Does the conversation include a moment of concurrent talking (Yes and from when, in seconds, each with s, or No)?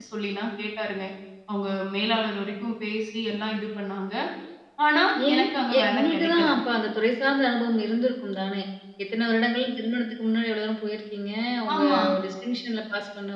Yes, from 5.3 s